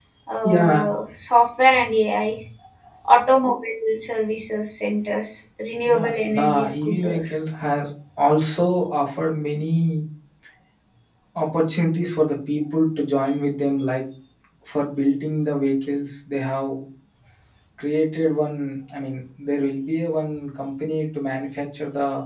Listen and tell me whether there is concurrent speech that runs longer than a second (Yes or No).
Yes